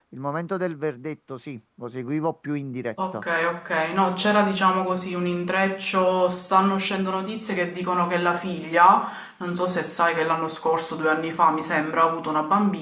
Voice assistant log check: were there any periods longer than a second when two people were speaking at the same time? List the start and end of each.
none

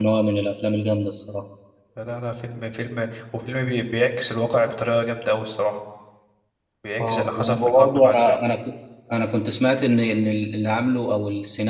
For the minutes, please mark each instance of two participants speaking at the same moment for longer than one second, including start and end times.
7.0-8.4

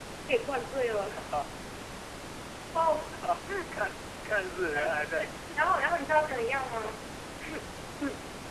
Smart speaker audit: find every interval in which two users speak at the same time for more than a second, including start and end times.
5.6-6.9

